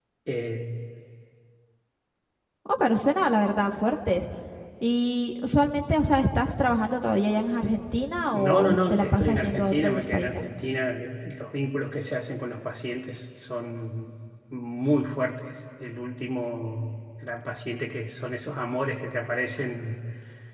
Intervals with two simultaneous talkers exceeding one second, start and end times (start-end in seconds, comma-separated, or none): 8.3-10.4